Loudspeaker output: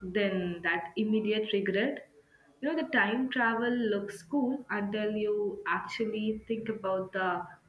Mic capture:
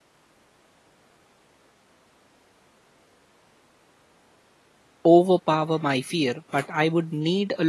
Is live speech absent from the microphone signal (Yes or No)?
No